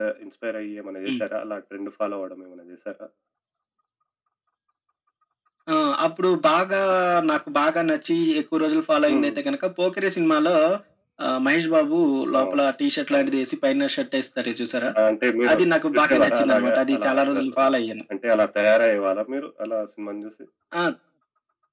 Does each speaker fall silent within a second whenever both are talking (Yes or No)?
No